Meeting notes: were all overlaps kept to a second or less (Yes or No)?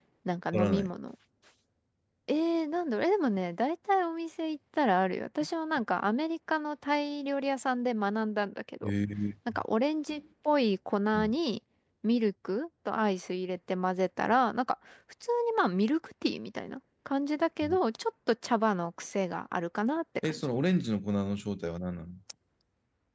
Yes